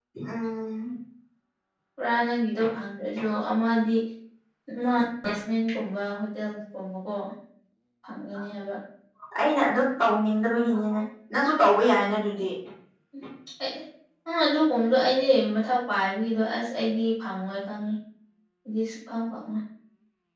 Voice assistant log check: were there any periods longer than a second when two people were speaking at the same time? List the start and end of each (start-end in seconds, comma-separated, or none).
none